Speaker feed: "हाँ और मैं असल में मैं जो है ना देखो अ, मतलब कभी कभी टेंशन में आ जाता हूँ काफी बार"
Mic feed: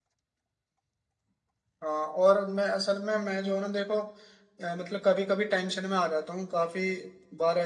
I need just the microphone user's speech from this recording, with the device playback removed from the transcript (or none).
none